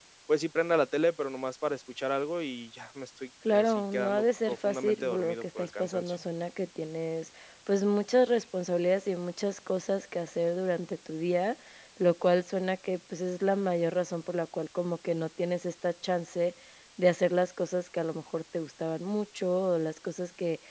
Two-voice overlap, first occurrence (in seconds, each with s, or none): 3.5 s